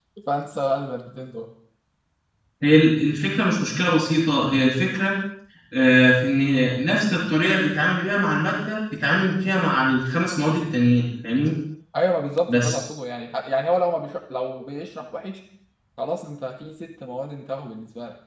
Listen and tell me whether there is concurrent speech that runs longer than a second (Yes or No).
No